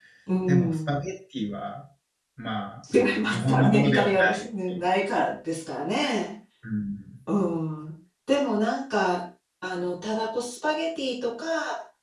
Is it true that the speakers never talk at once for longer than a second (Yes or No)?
No